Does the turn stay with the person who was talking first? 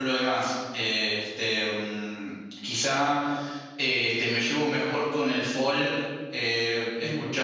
No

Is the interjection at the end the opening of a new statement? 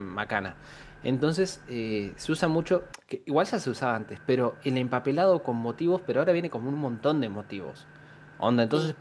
No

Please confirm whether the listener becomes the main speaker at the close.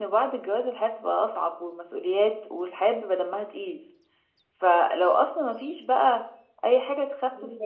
No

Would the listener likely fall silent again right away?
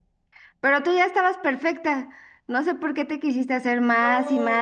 No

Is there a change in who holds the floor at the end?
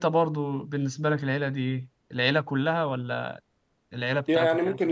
Yes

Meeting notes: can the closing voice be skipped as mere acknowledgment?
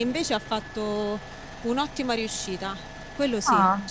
No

